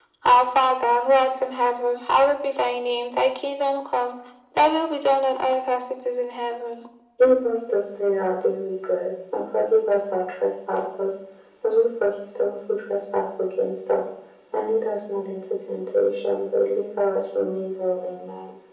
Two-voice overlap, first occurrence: none

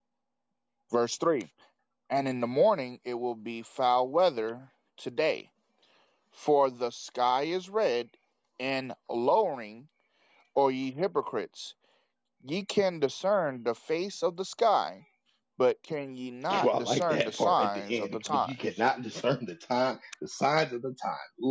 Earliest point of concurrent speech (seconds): 17 s

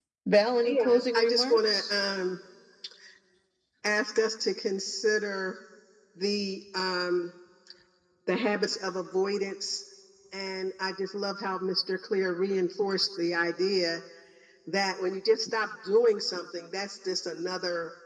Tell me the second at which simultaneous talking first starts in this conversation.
1 s

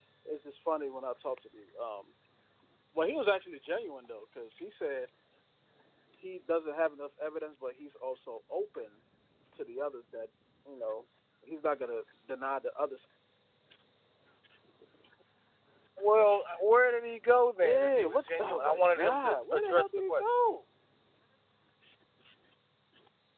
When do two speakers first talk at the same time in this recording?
18 s

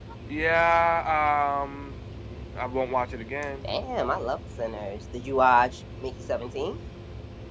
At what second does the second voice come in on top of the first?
none

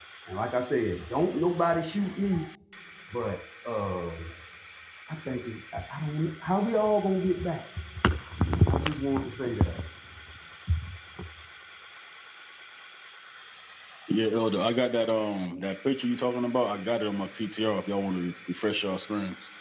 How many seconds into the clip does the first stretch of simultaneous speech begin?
none

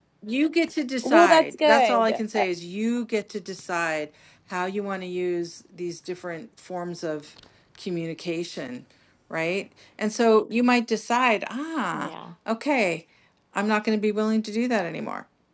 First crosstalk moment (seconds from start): 1 s

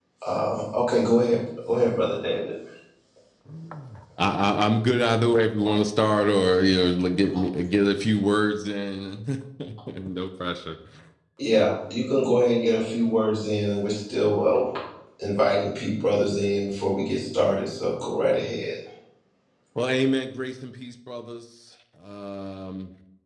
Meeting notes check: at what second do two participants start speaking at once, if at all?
none

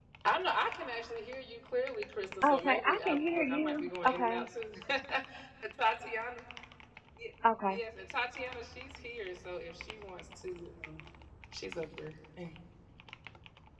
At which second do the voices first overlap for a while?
2 s

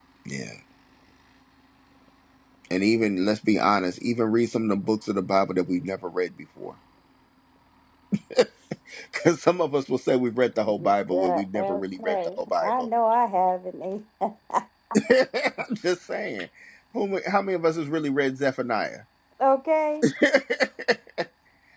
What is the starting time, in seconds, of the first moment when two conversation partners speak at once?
11 s

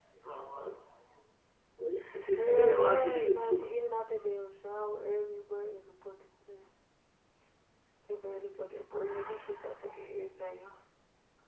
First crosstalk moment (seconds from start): 2 s

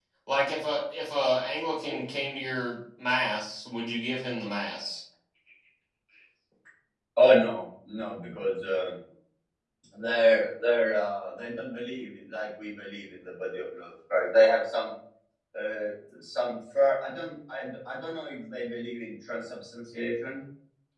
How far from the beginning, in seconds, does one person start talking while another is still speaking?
none

